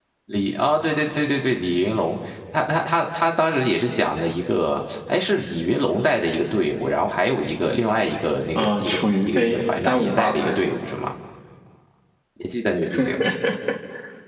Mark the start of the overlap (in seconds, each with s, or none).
8.6 s